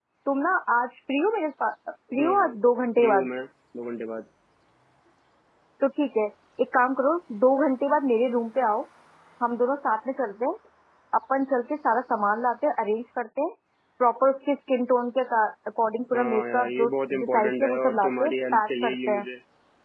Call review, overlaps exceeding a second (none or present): present